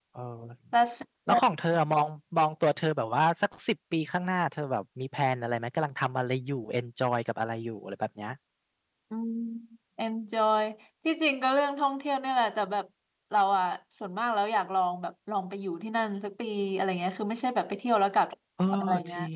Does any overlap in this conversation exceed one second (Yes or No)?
No